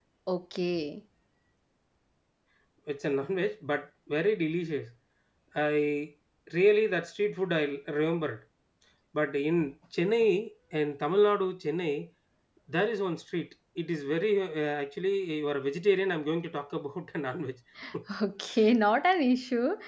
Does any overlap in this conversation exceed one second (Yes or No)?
No